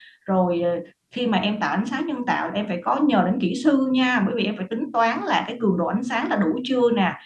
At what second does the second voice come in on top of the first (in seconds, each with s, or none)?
none